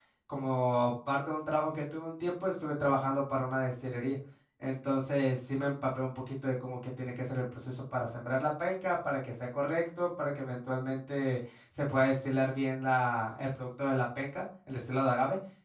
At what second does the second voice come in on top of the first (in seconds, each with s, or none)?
none